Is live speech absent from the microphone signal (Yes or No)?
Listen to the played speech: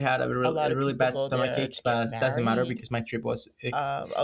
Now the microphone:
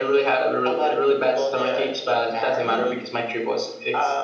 Yes